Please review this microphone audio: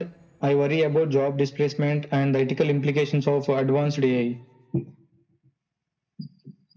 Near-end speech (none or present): none